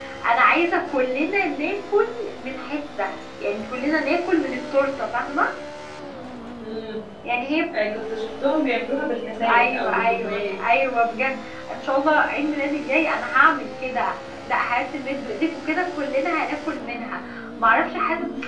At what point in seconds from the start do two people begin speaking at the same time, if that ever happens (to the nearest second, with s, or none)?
9 s